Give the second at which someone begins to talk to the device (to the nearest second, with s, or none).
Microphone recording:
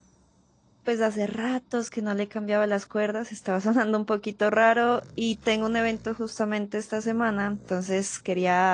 1 s